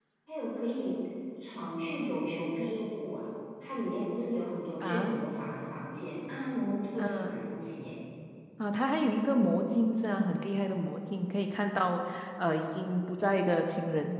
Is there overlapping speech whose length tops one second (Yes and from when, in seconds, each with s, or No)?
No